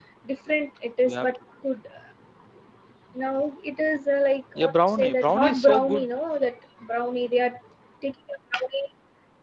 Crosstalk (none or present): present